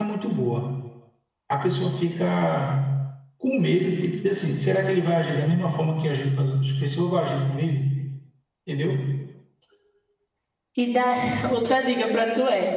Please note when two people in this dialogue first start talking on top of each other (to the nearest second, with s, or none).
none